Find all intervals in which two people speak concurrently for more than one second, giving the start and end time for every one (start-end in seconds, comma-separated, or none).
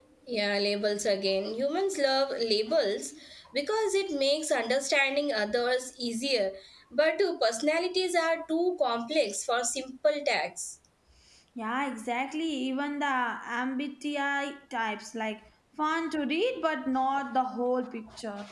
none